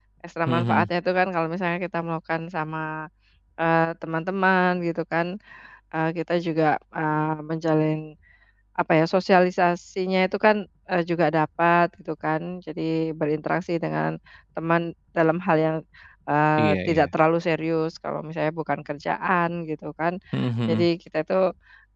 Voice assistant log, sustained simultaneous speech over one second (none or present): none